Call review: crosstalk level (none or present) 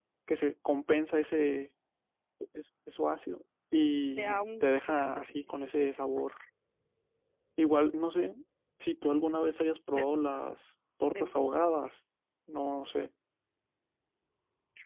present